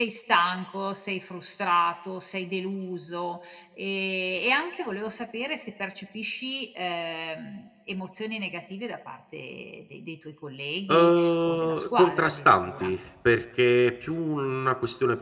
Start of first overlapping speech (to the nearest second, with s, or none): 11 s